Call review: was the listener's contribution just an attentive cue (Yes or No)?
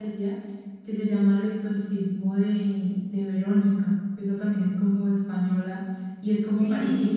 No